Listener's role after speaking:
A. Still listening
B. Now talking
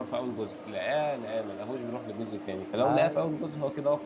A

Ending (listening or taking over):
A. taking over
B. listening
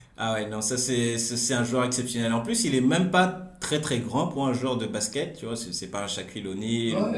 A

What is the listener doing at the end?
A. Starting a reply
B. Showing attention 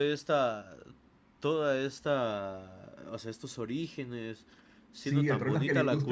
A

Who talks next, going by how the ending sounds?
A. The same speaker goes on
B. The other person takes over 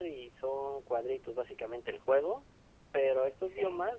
A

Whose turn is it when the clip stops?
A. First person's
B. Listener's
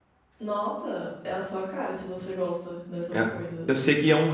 B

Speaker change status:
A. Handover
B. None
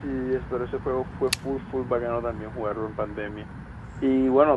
B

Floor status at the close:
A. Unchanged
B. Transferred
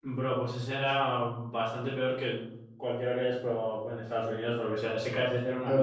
B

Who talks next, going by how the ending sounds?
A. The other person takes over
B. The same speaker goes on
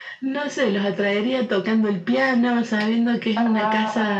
B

